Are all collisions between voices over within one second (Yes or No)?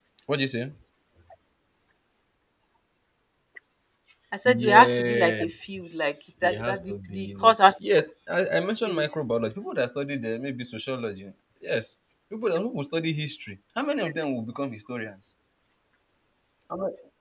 No